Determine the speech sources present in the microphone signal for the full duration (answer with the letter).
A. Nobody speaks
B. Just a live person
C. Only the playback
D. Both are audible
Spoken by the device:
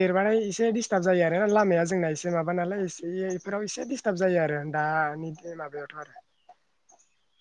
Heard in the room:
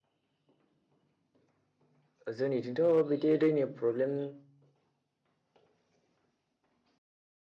B